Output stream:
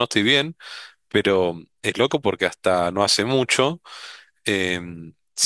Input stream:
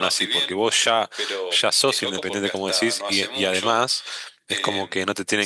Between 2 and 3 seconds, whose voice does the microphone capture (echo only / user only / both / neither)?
both